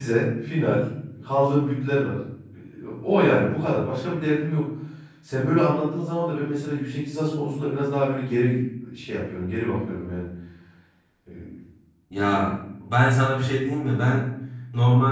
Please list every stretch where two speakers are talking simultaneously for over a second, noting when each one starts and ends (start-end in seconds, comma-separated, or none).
none